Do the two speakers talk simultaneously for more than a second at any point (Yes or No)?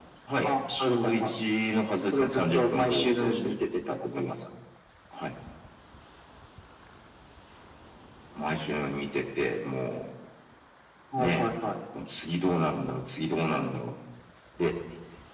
Yes